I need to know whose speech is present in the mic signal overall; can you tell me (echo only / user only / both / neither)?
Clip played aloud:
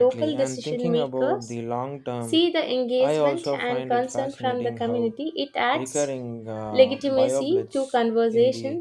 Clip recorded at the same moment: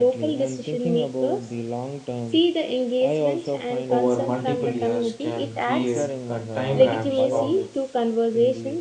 both